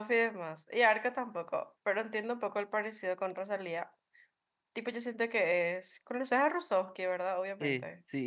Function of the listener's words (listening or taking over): taking over